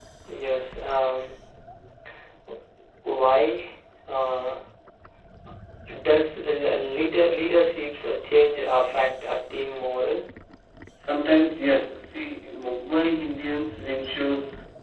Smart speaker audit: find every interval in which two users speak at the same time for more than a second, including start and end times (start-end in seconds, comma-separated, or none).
none